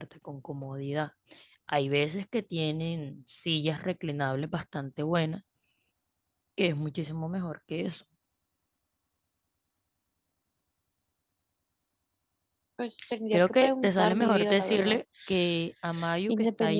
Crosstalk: present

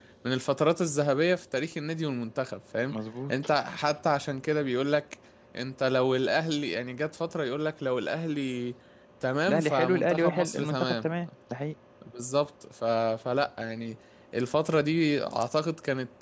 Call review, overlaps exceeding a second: present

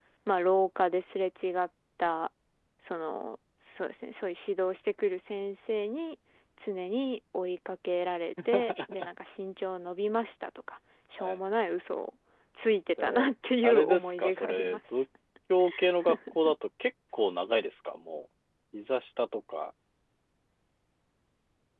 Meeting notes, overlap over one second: present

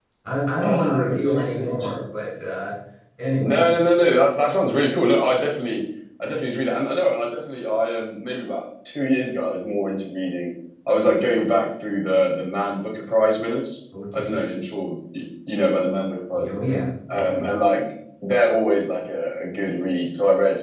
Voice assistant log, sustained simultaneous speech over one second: present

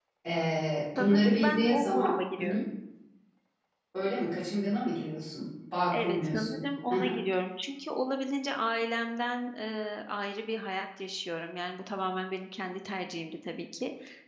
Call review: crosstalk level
present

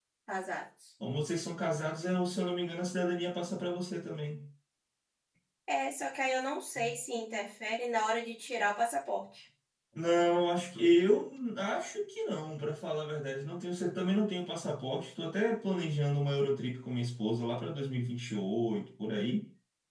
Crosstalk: none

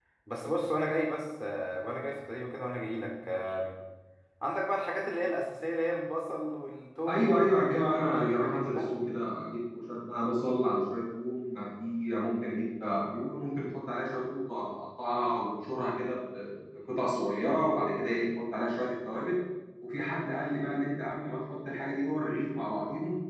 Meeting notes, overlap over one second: present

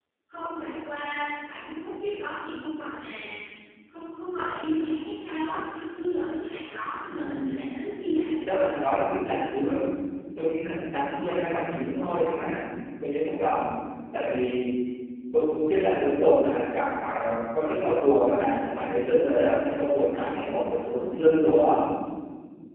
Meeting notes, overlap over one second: none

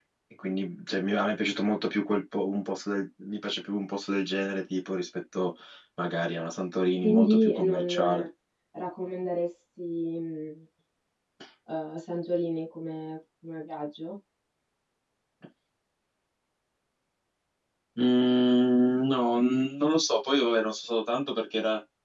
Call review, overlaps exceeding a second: present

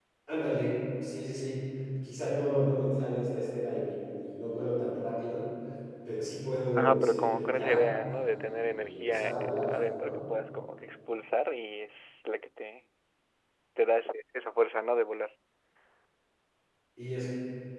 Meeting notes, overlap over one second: present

